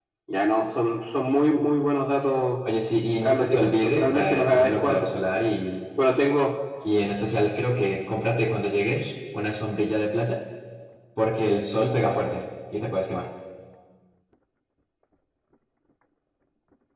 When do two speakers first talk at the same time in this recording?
3.2 s

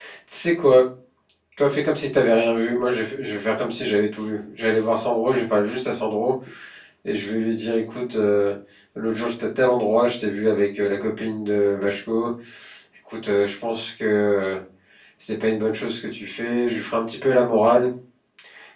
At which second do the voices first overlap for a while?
none

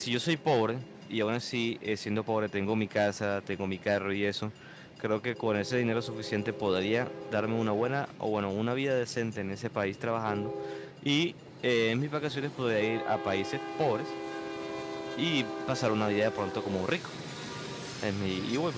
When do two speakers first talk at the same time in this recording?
none

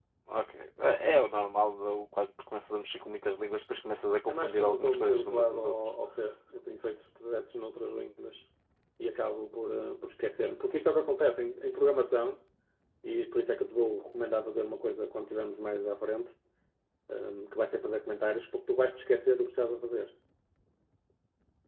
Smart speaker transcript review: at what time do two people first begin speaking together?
4.3 s

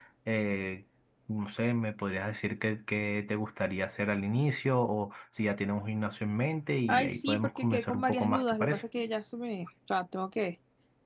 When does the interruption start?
6.9 s

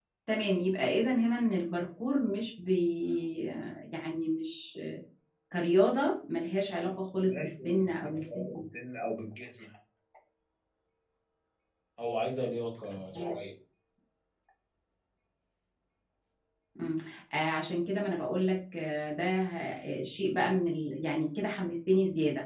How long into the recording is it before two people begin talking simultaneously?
7.2 s

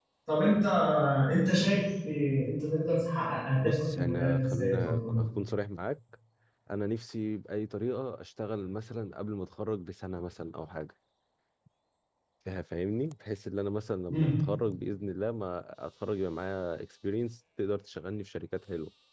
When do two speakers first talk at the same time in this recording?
3.6 s

